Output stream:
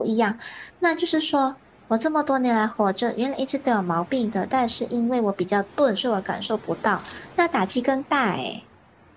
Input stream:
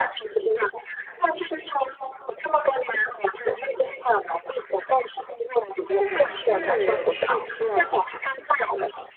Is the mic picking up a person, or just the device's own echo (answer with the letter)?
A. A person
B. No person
A